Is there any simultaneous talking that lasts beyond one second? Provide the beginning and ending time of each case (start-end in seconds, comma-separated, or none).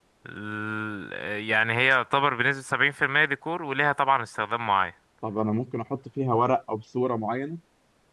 none